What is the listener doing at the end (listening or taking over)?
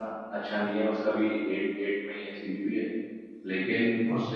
listening